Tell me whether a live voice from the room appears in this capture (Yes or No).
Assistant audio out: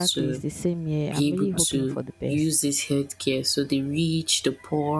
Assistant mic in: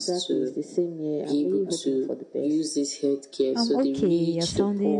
Yes